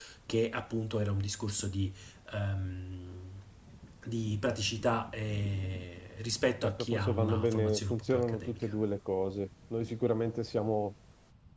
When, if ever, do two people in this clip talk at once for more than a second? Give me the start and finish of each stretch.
6.6-8.7

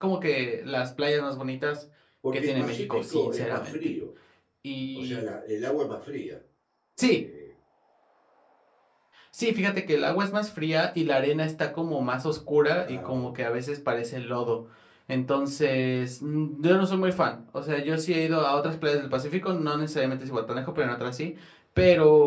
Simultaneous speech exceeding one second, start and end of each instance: 2.3-3.8

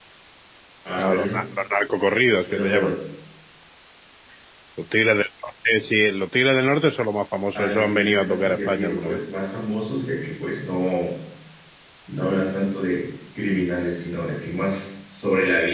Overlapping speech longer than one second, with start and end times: 7.5-9.2

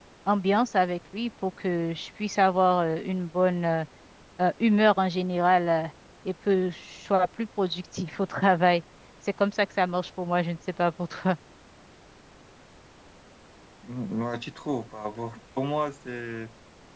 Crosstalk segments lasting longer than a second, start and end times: none

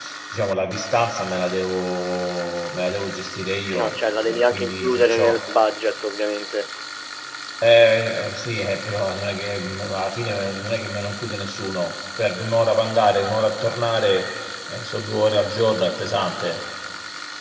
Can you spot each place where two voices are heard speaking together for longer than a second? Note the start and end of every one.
3.7-5.4

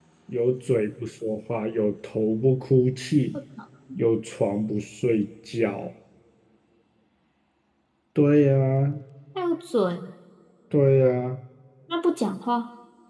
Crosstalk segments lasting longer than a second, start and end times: none

